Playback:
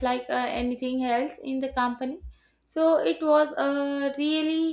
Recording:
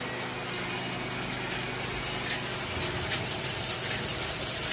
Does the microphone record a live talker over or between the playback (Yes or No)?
No